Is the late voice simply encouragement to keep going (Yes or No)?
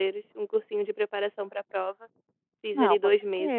No